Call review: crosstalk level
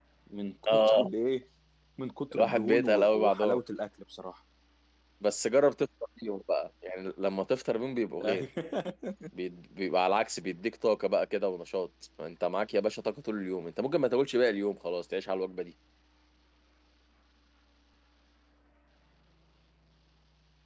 present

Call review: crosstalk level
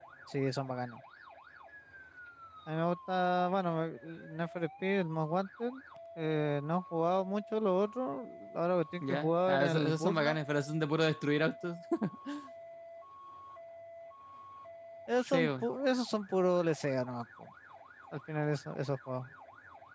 present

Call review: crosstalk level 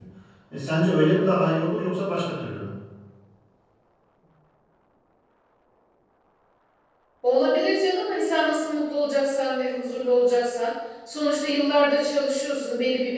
none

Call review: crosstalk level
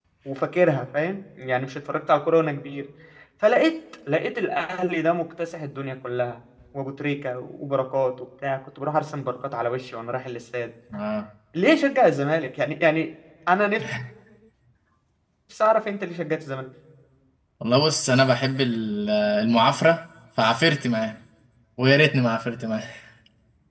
none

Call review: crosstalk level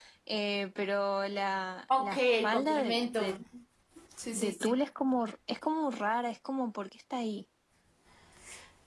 present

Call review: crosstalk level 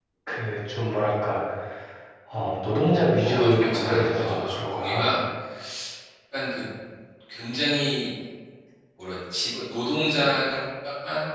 present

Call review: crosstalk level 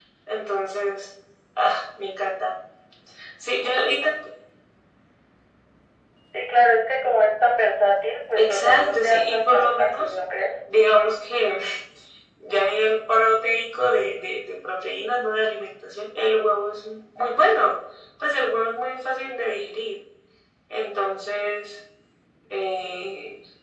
present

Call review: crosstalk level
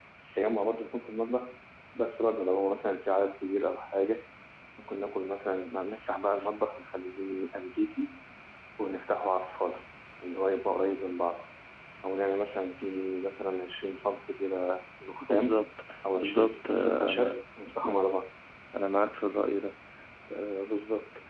present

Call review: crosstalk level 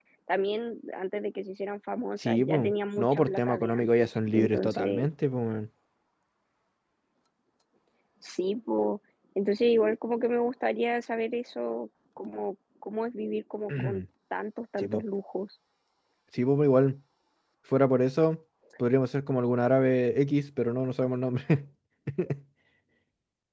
present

